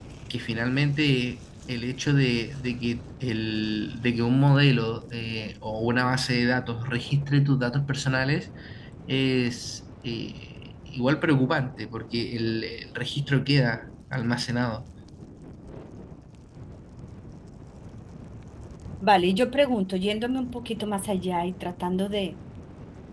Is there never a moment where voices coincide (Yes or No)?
Yes